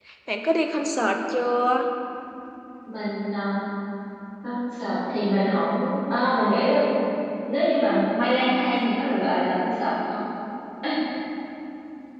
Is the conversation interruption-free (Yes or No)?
Yes